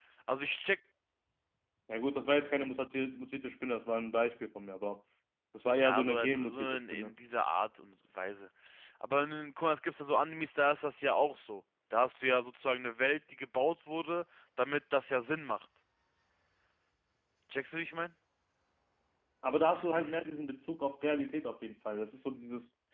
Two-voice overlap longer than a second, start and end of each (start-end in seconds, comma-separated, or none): 5.8-7.1